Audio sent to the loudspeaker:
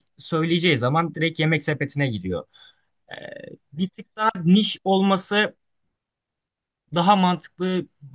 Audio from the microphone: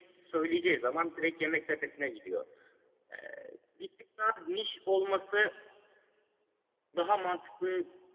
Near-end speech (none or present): none